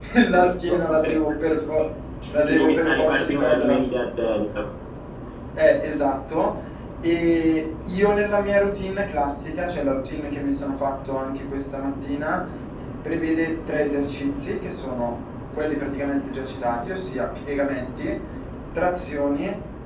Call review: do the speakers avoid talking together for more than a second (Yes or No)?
No